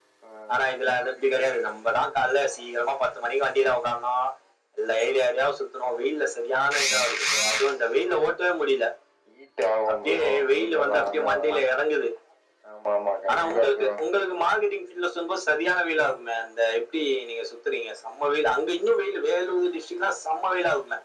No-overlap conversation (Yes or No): No